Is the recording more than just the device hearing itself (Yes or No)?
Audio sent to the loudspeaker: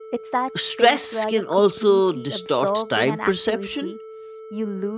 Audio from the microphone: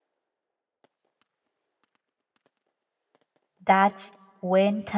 Yes